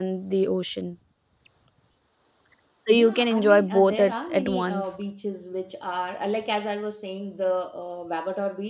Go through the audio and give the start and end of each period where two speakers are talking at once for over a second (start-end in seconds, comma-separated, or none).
2.9-5.0